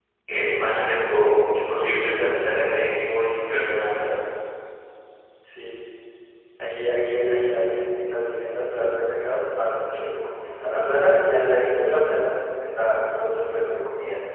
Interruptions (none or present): none